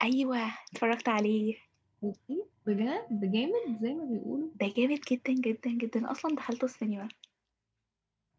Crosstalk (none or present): none